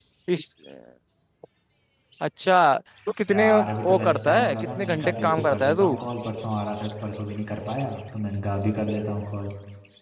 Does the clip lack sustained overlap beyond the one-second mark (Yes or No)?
No